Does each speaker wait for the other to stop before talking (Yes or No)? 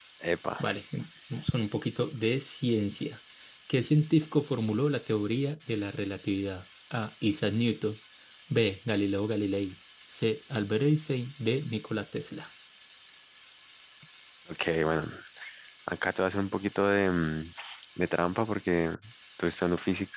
Yes